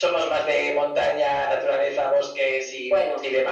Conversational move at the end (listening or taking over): taking over